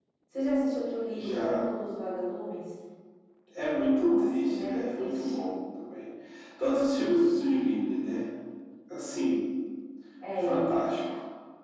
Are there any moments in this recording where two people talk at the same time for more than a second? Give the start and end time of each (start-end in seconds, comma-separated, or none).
4.0-5.3